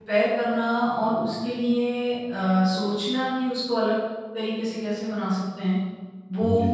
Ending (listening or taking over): listening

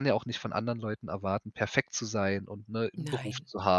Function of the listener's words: listening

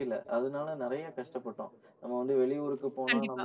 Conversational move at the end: listening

